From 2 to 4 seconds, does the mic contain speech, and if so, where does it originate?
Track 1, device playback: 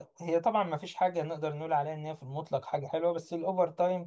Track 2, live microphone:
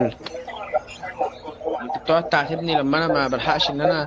both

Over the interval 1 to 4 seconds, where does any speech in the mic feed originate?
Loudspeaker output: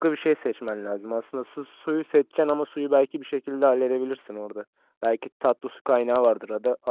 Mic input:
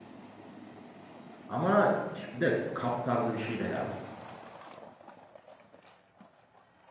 user only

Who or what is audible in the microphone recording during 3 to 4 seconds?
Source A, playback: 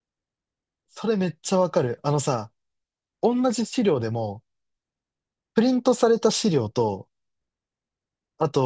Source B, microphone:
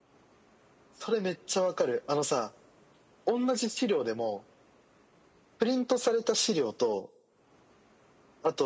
echo only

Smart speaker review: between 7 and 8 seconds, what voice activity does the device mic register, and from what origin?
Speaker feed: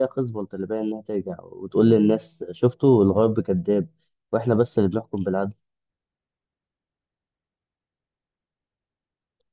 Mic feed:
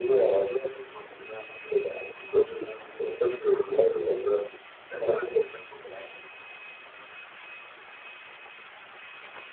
neither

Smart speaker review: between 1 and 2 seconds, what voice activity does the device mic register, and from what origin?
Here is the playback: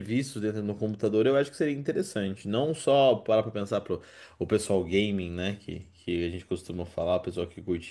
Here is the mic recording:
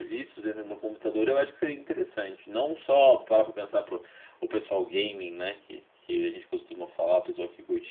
echo only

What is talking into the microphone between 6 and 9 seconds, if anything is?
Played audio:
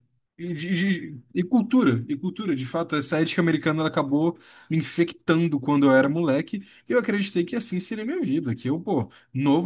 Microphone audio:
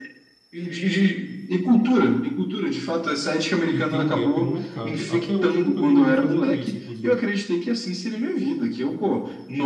both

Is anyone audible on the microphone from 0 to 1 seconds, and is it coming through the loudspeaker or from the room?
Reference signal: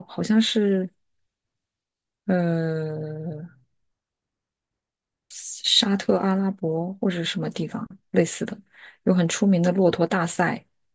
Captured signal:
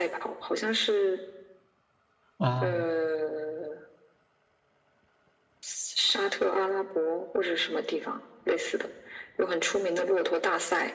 echo only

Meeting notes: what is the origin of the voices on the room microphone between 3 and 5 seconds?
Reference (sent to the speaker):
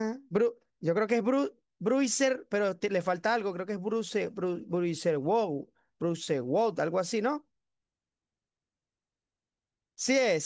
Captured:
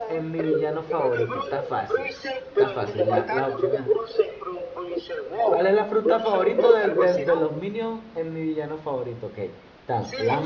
both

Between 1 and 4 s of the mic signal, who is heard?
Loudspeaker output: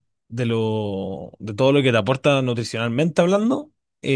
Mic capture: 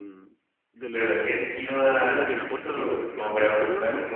both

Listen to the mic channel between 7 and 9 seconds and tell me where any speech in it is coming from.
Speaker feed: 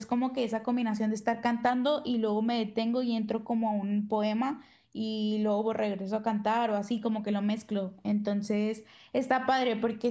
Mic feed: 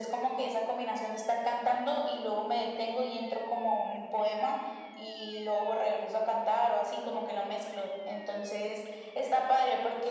echo only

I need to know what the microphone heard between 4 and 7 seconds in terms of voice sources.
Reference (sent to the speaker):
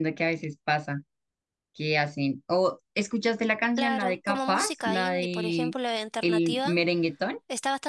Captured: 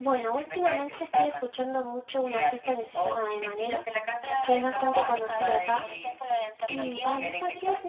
both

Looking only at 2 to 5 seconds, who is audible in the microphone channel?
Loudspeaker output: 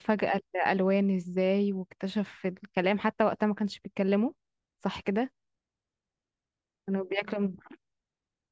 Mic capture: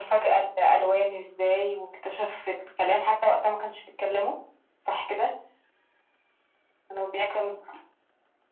echo only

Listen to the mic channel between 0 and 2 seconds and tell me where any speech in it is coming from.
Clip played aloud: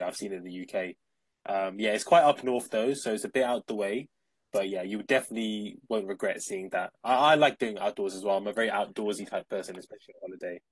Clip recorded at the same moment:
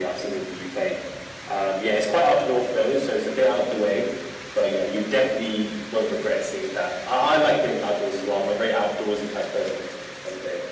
echo only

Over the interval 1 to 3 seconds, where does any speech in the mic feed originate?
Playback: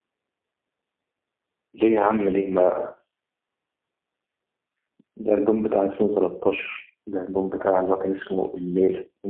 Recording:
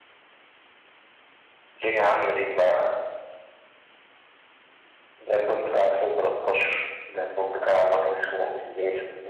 echo only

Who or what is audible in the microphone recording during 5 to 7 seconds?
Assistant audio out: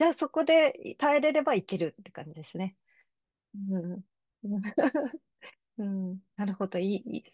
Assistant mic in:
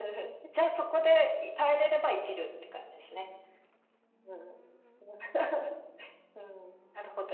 echo only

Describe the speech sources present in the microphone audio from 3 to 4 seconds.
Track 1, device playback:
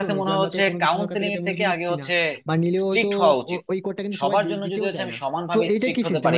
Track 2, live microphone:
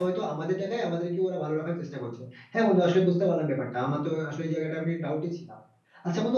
user only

